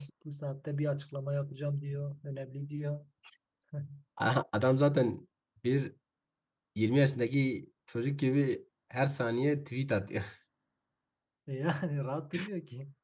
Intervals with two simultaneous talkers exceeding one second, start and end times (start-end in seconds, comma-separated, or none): none